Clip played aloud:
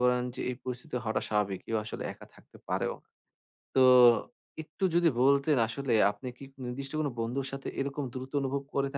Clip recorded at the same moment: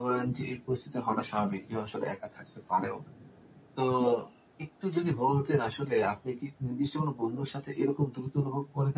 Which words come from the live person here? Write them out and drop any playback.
none

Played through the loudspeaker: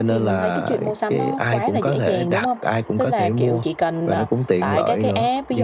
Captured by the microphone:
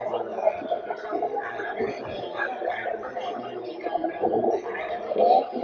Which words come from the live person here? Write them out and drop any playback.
none

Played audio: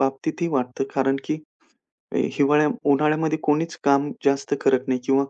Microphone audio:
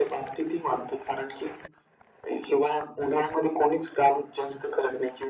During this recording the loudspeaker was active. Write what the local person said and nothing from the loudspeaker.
none

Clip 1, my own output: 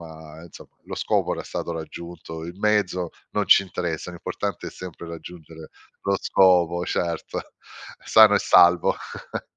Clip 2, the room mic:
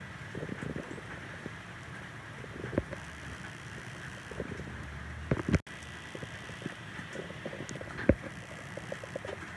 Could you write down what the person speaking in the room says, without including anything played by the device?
none

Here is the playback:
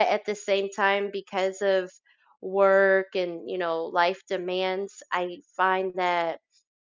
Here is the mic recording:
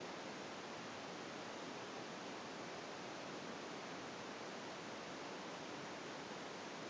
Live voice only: none

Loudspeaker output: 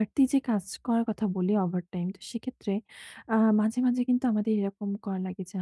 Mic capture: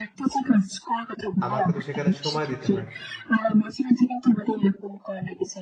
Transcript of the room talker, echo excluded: আমাকে তো সেখানে সময় দিতে হয়।

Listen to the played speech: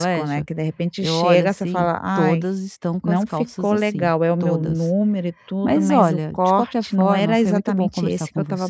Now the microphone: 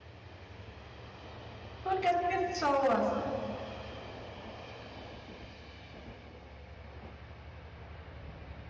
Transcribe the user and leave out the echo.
porque as pessoas

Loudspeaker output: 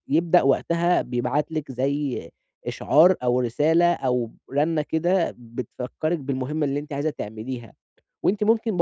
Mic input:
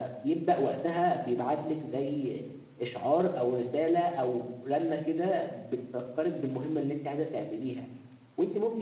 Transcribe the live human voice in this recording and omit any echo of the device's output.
none

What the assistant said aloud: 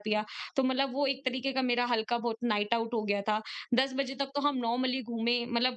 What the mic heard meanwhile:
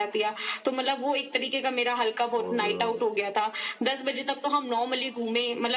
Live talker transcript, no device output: और अ,

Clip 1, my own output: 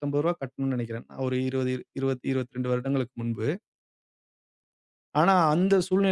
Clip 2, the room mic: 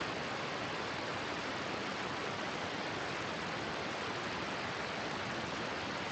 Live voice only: none

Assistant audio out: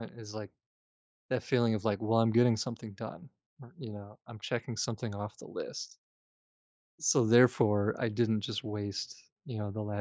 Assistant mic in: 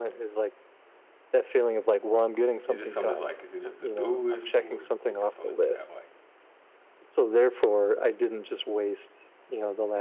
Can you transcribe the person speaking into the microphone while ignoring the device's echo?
is it something that's like, is it a to-do list or is it something that you have like

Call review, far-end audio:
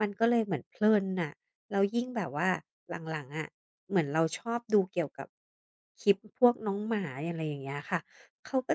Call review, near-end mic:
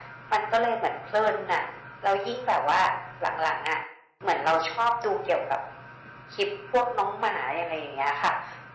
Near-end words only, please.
none

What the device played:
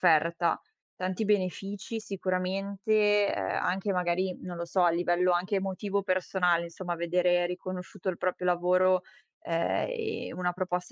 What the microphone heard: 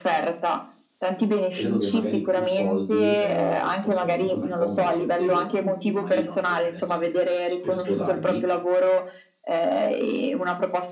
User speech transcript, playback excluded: Credo che magari più soldi, ehm, possano comunque far comodo sia a te che al tuo futuro marito, anche perché adesso state per s per sposarvi.

